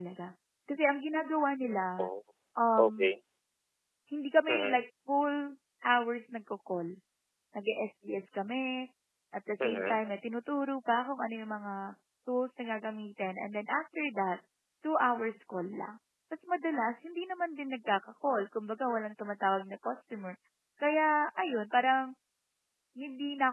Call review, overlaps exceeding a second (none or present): none